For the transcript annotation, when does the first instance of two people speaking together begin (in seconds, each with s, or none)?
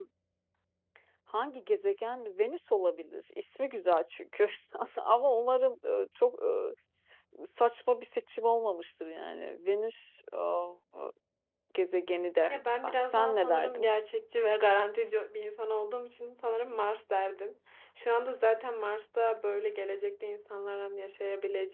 12.5 s